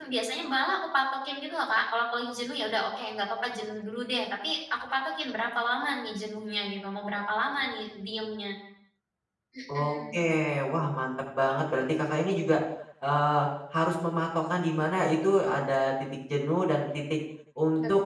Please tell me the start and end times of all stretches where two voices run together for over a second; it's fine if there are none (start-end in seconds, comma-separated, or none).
none